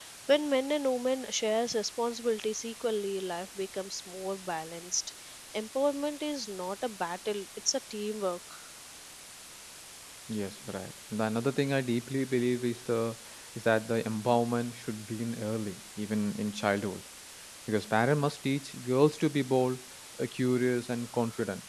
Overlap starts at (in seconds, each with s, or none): none